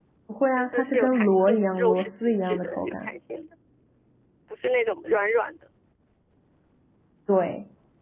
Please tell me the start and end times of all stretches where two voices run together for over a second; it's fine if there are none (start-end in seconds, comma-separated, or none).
0.6-3.1